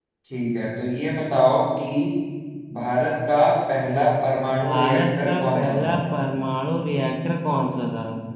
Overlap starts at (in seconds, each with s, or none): 4.5 s